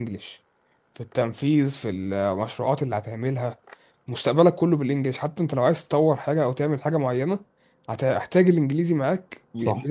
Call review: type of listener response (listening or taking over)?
taking over